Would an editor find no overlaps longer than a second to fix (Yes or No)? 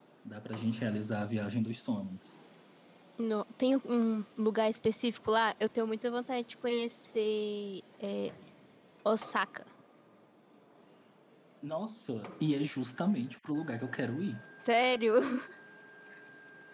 Yes